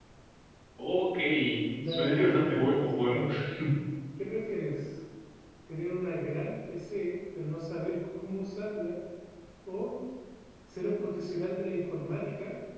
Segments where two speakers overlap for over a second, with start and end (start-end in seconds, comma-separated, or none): 1.9-3.2